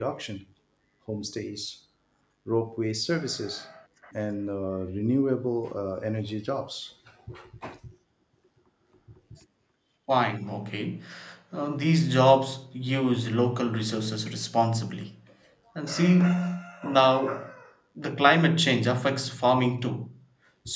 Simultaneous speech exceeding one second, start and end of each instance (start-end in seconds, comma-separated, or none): none